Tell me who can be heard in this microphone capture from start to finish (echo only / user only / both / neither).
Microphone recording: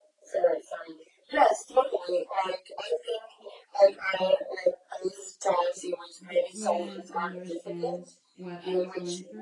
both